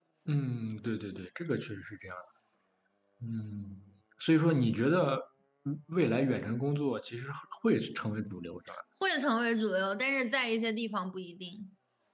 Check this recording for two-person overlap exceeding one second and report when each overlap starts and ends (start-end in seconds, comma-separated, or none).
none